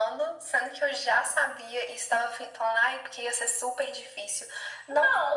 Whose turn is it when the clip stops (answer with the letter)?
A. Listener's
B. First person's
A